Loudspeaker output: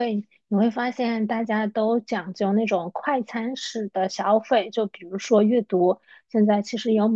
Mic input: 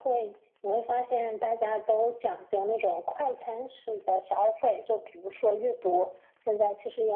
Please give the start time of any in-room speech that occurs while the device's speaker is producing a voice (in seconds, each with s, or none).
none